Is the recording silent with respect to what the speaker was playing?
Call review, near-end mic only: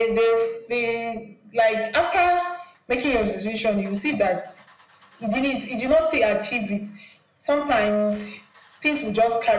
No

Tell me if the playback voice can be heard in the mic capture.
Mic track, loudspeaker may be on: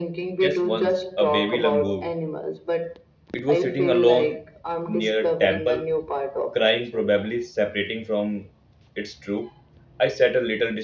Yes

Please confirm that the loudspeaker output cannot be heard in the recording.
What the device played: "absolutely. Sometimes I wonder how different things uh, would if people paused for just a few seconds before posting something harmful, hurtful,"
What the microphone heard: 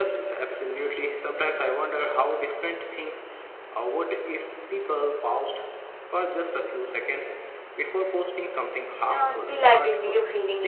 No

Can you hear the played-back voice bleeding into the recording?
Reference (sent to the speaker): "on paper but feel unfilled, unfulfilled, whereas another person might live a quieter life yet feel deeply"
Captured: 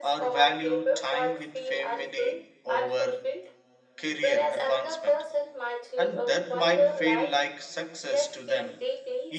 Yes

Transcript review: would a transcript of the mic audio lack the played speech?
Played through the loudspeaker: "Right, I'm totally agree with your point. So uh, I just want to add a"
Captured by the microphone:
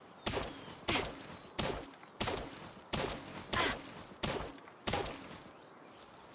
Yes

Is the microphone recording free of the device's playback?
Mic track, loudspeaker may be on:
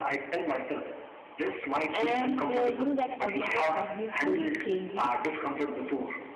No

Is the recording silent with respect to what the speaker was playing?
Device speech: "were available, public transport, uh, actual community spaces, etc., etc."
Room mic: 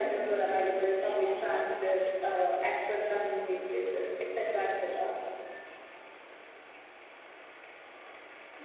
No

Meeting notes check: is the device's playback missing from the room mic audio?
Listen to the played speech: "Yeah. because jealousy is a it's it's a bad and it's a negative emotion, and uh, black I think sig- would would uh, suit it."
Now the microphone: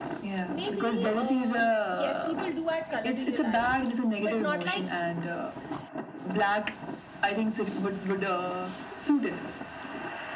No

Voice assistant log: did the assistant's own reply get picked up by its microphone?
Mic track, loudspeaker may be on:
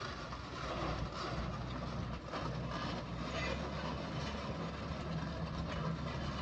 No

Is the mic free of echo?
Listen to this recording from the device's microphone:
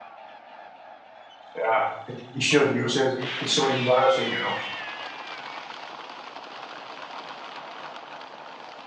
Yes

